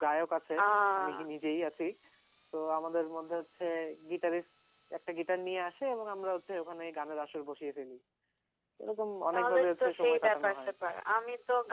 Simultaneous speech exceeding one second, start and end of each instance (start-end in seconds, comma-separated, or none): 9.3-10.7